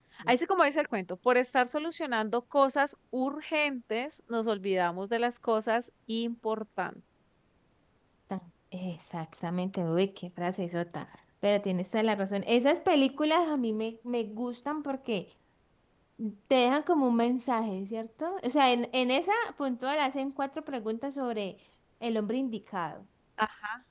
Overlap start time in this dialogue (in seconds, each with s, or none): none